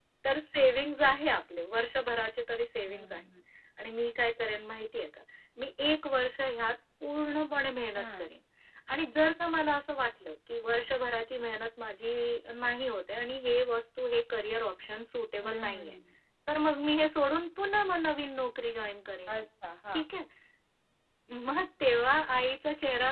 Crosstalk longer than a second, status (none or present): none